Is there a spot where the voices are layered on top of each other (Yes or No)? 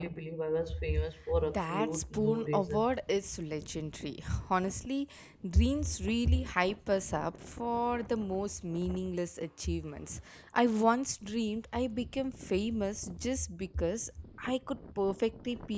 Yes